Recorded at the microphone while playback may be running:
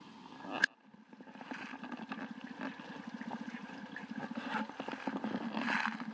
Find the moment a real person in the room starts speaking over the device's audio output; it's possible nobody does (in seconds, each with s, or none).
none